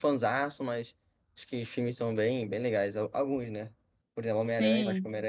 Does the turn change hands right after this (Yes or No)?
No